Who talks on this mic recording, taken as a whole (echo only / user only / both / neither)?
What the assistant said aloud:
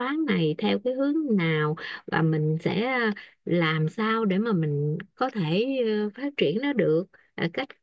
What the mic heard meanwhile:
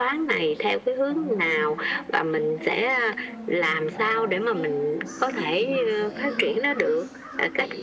both